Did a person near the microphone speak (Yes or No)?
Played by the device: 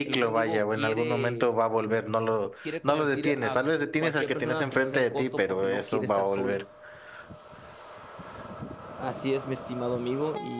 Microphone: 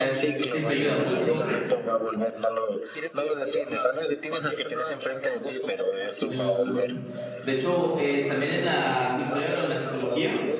Yes